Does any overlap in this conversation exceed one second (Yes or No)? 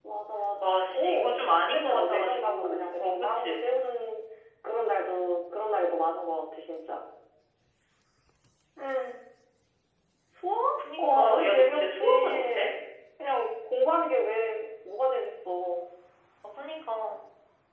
Yes